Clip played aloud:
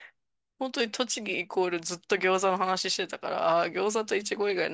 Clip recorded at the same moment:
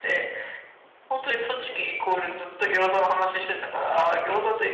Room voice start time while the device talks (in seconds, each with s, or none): none